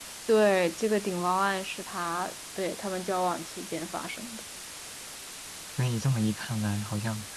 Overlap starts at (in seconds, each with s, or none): none